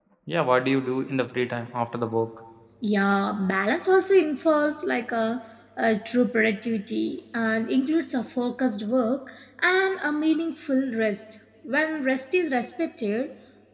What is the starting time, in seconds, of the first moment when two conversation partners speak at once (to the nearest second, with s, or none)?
none